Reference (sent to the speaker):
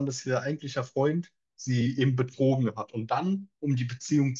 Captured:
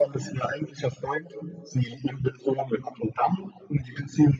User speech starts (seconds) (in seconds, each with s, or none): none